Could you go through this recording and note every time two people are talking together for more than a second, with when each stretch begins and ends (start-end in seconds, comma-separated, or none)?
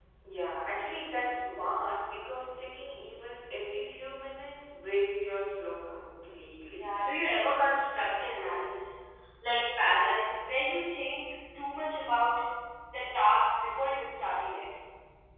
none